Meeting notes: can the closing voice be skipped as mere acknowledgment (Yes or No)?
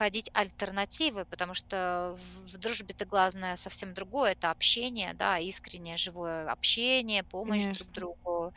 Yes